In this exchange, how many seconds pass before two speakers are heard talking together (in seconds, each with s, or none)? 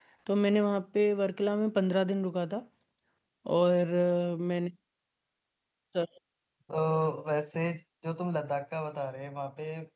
none